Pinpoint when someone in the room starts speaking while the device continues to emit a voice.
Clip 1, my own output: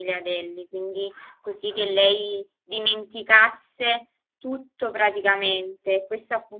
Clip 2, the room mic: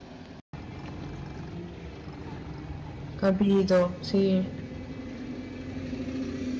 3.2 s

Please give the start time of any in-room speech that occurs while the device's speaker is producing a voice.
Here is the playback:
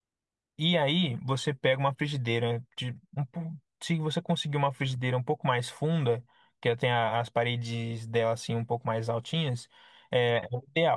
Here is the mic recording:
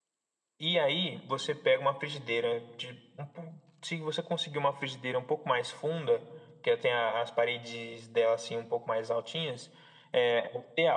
none

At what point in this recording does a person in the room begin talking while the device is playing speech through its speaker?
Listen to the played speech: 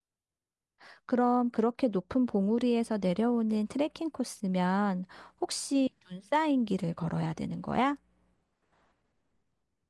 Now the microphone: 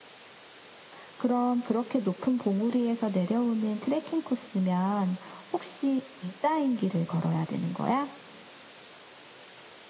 none

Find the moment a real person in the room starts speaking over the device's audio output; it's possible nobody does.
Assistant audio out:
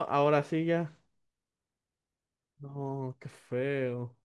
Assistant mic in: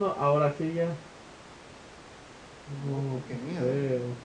2.8 s

